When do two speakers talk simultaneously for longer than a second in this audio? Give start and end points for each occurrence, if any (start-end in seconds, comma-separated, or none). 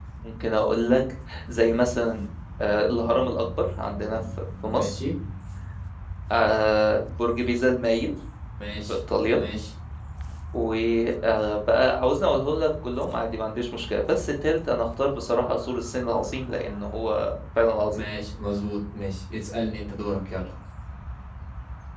none